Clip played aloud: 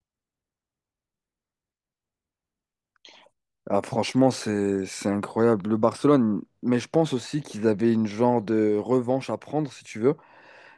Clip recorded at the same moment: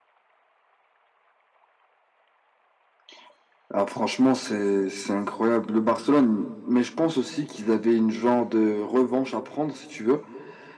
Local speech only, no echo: none

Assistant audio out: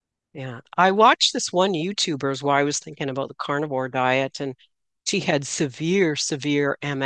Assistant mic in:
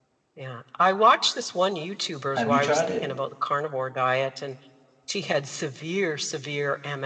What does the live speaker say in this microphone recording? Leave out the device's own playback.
Have you tried it?

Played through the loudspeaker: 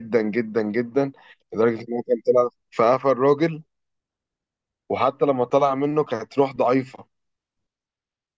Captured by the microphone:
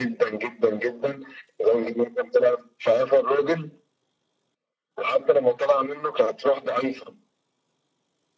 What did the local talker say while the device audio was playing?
none

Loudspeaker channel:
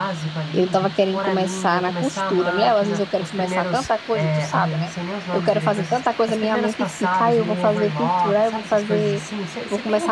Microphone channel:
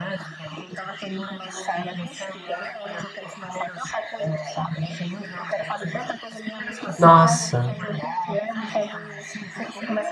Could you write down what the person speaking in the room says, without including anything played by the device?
Nossa.

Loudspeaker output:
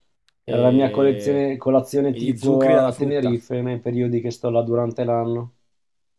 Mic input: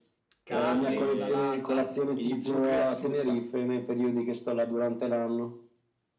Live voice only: carne, insalata

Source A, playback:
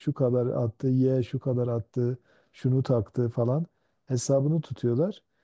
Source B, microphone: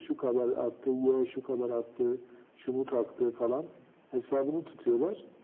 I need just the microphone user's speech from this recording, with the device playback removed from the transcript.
none

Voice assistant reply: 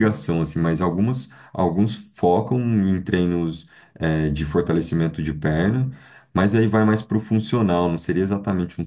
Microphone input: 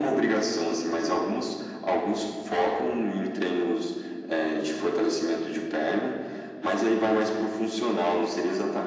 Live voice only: none

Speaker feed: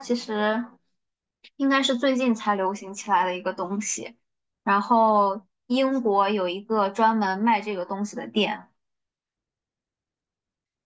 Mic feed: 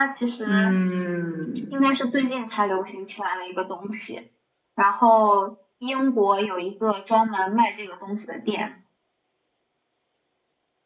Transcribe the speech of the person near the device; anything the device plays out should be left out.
嗯，

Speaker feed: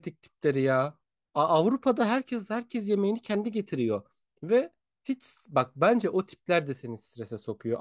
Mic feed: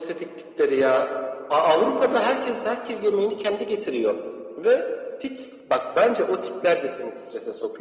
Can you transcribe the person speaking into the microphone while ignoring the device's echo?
none

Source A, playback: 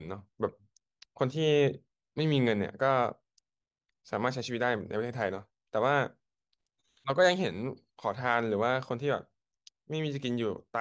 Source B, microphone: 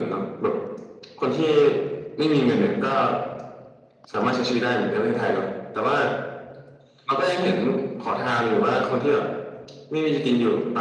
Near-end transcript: none

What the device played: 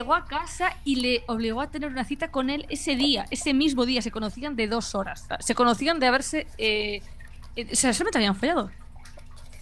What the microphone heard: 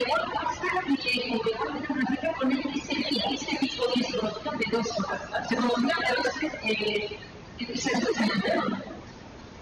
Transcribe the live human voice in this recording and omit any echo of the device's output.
none

